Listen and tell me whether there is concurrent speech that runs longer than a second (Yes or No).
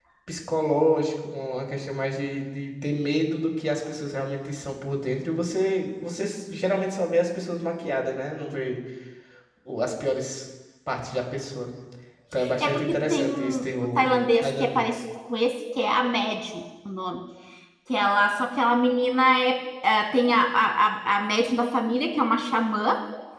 Yes